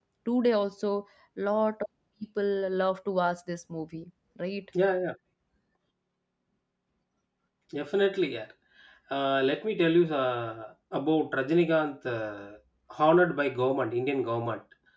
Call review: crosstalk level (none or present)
none